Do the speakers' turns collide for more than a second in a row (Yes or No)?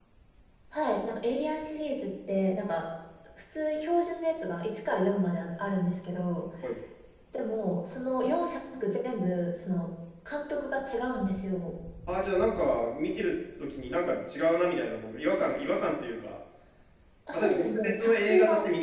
Yes